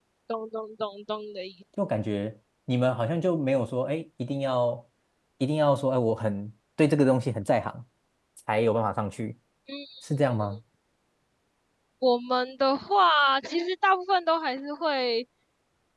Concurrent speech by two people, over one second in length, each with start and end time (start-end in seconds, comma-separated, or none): none